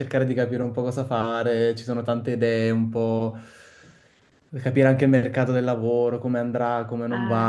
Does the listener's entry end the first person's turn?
No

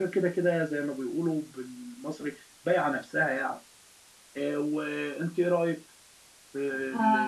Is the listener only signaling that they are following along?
No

